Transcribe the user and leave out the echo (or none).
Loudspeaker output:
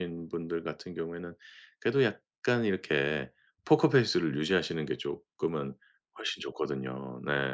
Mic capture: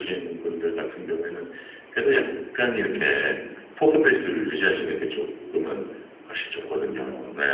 음 그쵸.